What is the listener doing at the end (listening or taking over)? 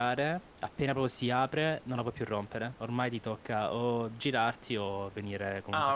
taking over